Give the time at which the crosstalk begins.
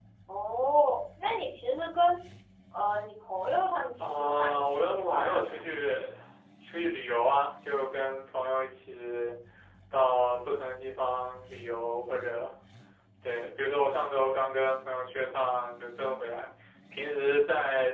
4 s

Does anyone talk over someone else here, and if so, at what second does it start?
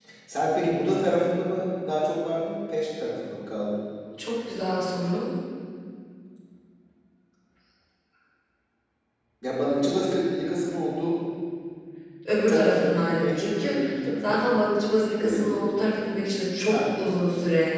12 s

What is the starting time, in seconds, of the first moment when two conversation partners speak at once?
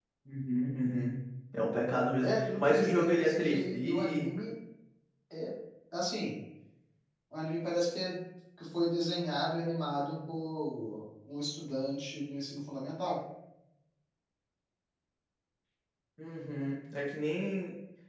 2 s

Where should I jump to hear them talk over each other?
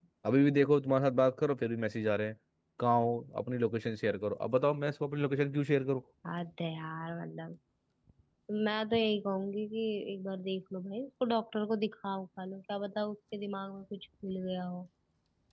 none

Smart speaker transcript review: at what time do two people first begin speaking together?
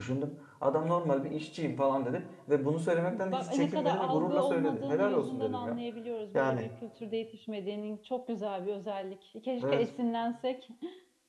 3 s

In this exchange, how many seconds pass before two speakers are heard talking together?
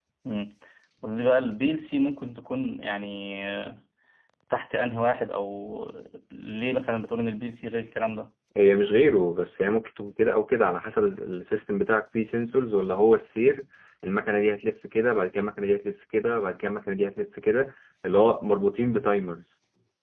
none

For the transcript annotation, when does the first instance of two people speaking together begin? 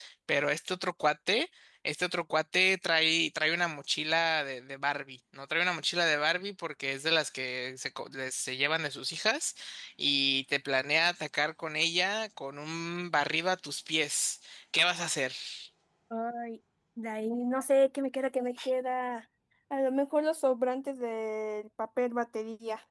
none

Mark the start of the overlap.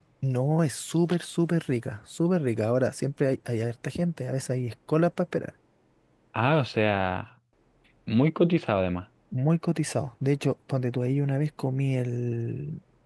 none

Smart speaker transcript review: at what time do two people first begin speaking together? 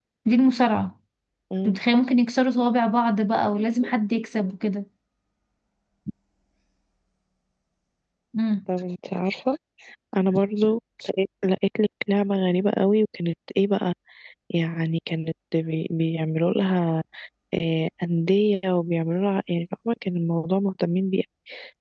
none

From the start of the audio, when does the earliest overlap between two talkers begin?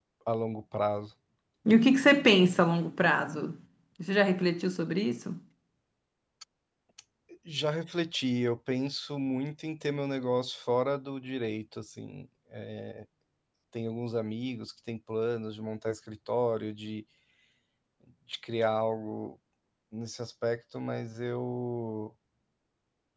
none

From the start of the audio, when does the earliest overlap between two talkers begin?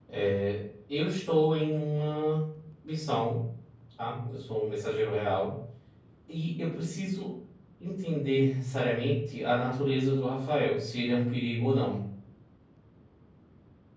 none

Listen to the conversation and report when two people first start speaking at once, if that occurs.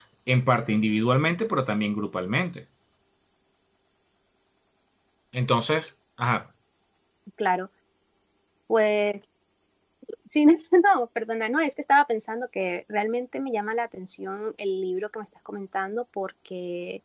none

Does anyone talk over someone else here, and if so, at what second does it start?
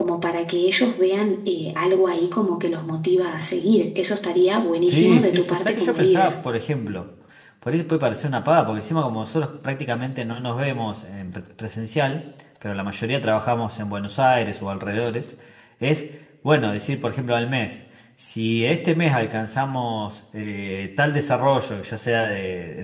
5 s

